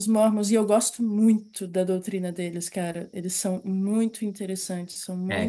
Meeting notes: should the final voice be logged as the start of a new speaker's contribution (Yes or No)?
Yes